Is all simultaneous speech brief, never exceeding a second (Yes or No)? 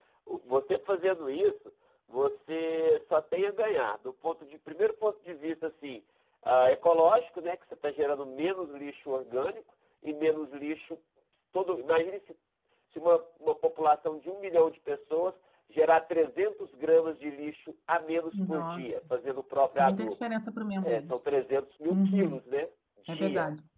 Yes